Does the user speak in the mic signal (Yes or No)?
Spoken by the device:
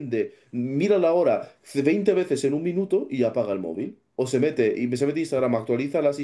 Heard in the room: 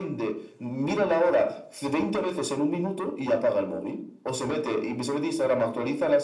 No